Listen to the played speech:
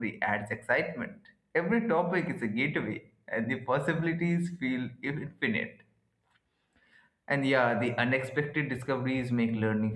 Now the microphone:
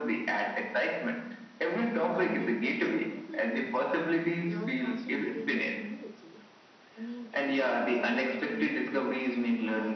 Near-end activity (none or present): present